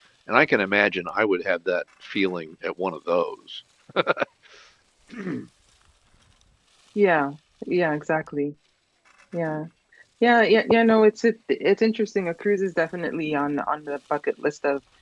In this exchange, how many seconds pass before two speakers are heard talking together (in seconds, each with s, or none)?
none